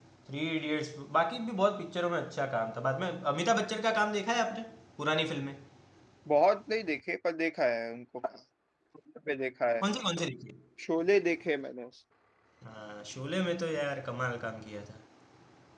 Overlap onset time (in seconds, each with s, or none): none